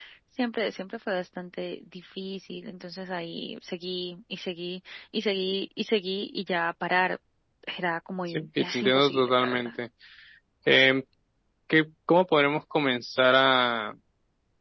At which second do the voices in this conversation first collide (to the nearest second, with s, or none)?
8 s